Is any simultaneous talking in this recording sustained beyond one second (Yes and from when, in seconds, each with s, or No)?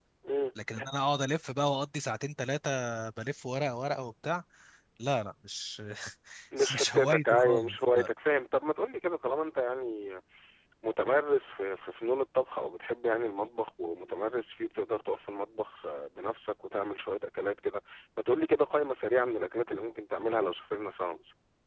Yes, from 6.7 s